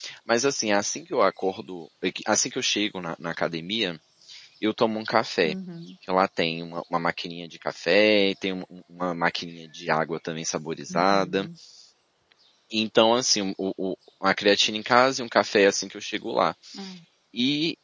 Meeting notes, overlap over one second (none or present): none